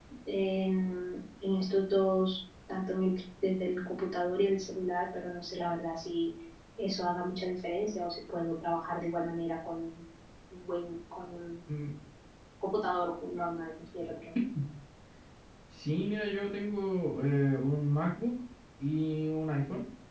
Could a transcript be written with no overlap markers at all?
Yes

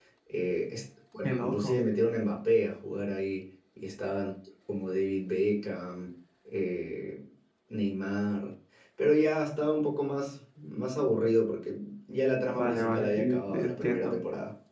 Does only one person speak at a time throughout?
No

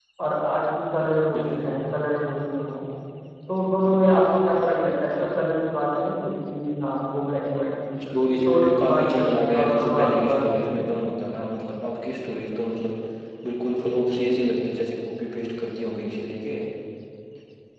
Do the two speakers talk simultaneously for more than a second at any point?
Yes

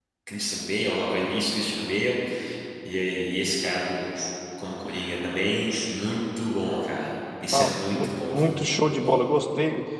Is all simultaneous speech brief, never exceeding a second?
No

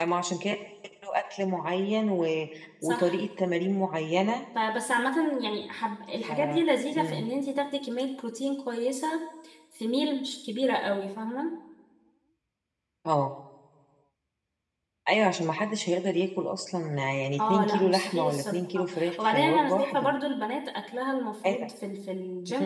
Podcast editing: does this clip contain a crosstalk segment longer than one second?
Yes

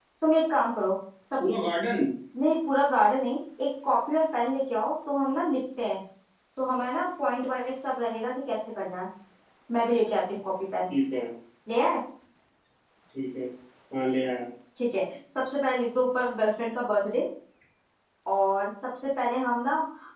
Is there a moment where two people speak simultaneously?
No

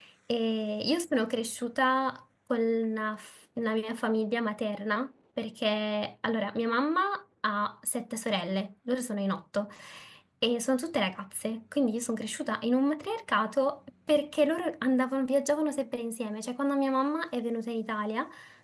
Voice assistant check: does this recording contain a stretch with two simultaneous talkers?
No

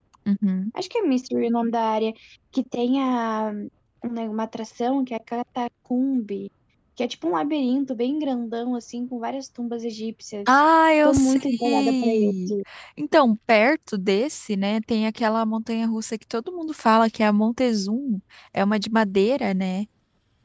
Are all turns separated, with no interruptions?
No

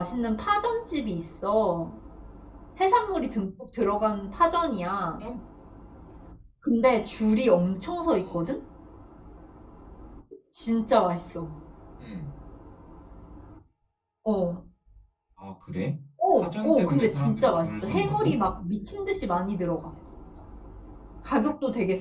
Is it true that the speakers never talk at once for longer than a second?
No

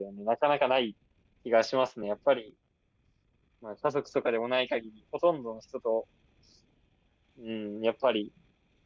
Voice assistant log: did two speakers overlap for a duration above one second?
No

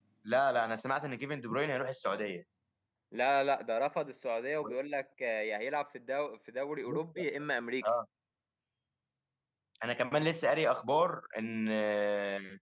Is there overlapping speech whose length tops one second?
No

